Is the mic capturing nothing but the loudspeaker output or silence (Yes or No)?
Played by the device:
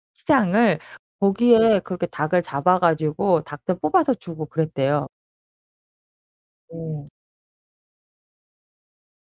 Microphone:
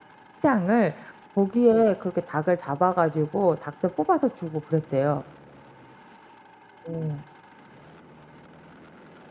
Yes